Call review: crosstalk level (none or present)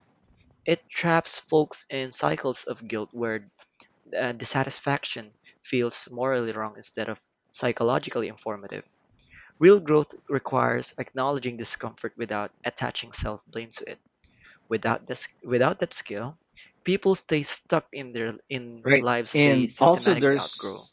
present